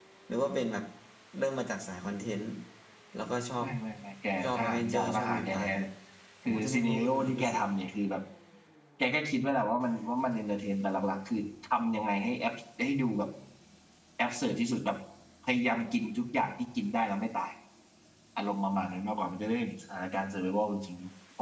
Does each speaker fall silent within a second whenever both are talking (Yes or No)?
No